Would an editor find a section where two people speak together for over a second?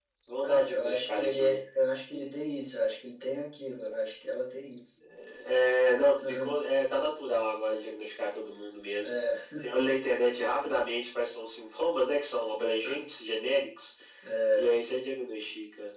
Yes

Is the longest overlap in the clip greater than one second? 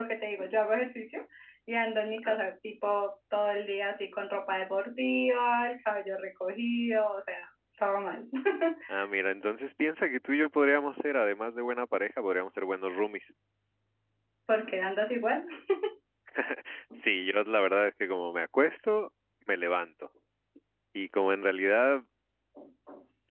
No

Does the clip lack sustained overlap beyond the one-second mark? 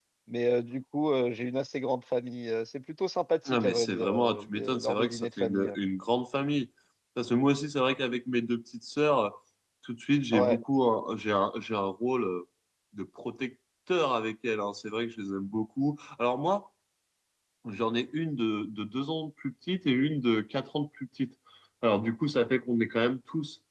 No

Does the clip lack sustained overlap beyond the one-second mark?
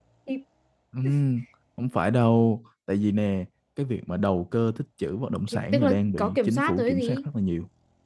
No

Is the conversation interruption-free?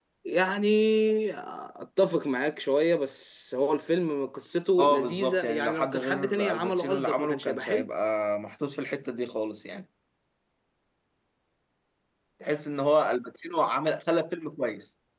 No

